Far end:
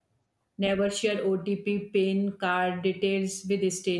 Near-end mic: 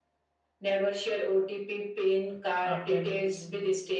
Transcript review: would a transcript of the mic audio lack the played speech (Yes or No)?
No